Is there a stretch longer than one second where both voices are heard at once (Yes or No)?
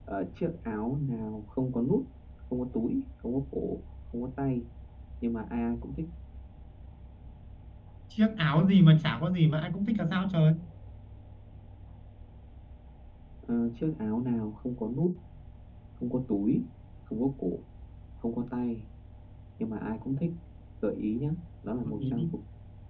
No